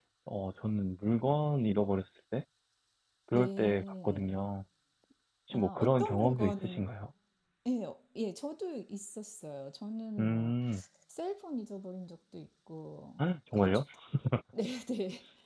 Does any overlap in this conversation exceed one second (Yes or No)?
Yes